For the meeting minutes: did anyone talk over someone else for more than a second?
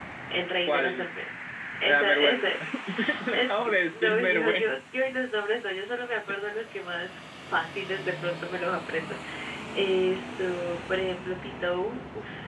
Yes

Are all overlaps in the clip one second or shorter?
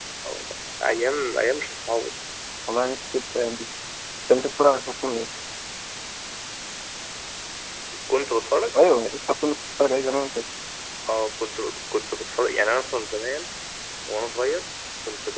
Yes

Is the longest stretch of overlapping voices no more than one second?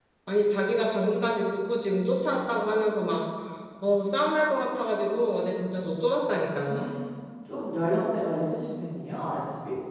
Yes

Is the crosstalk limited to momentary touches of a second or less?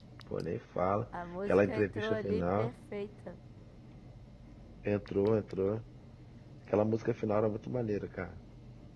No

